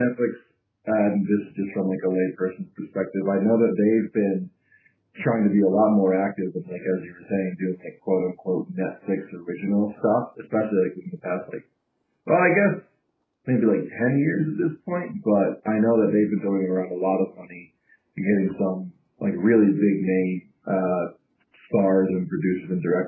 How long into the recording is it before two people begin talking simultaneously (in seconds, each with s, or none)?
none